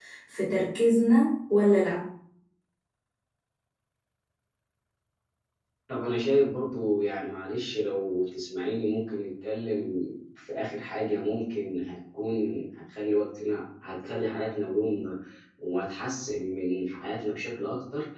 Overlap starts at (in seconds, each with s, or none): none